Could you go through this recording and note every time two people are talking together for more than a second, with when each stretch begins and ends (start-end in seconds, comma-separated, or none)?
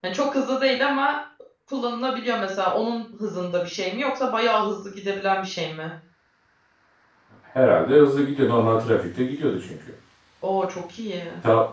none